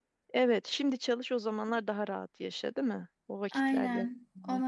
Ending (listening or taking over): taking over